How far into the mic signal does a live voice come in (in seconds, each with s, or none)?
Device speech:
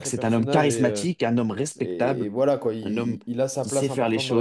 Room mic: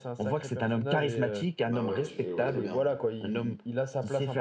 1.6 s